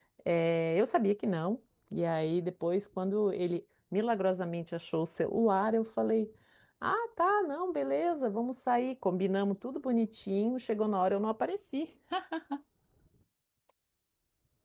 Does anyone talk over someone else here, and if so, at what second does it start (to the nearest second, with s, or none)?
none